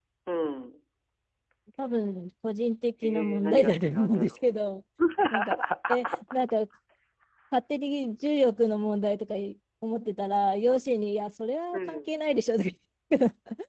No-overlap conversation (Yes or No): No